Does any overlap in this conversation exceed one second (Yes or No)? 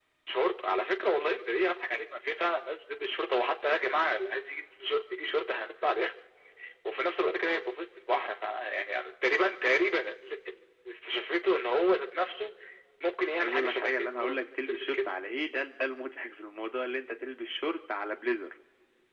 Yes